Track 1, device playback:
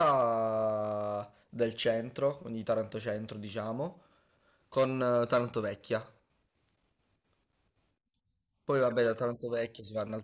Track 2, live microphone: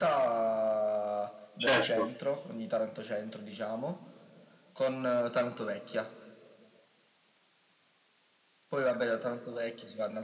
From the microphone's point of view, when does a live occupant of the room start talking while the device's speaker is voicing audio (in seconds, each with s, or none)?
1.6 s